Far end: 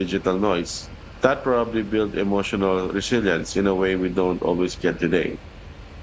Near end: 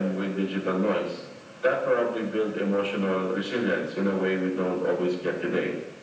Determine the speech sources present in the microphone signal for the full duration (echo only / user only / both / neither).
echo only